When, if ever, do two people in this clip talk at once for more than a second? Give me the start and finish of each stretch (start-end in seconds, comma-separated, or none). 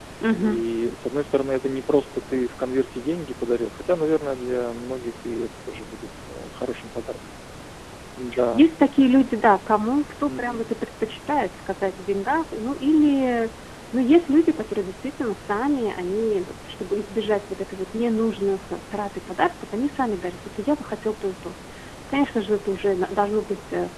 none